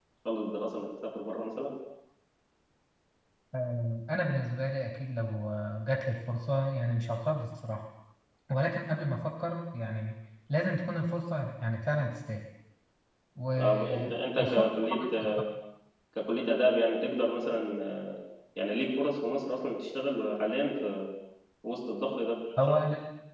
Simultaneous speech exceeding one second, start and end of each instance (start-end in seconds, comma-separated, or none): 13.6-15.0